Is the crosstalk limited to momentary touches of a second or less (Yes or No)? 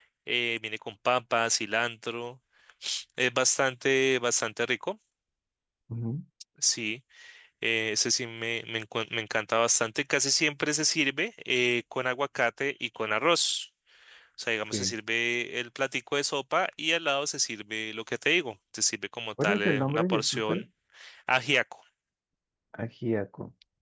No